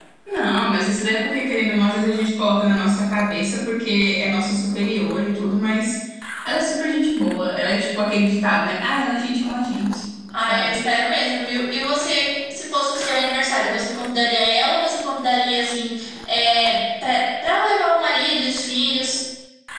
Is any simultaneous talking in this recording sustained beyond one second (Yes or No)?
No